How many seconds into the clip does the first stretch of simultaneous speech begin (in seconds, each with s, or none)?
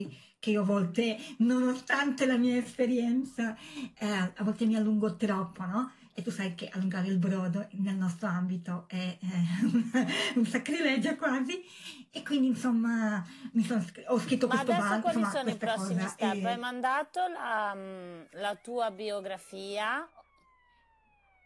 14.4 s